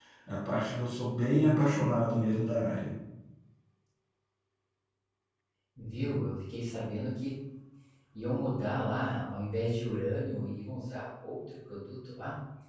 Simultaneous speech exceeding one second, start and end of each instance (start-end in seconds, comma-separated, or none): none